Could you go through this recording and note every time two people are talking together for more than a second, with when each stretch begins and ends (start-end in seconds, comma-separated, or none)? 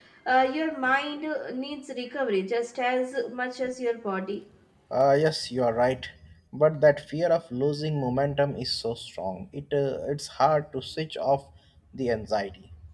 none